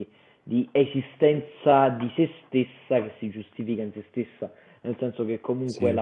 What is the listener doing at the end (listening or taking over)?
listening